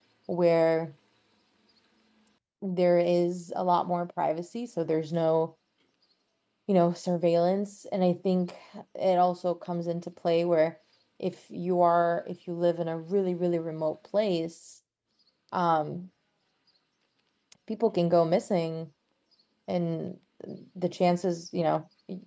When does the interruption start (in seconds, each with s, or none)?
none